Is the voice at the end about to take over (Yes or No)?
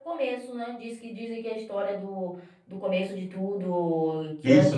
Yes